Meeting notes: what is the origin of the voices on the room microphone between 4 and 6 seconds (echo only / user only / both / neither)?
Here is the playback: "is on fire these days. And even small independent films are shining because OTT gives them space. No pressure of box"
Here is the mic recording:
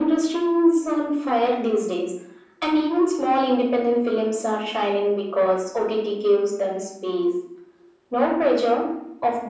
echo only